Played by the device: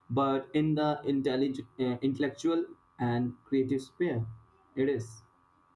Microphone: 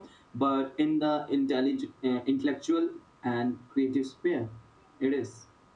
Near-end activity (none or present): none